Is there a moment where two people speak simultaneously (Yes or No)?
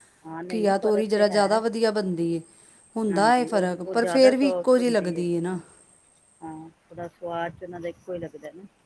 Yes